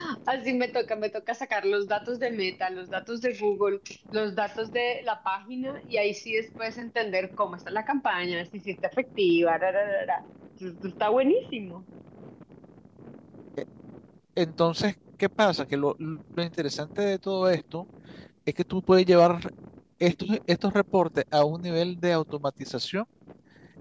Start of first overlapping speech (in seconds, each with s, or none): none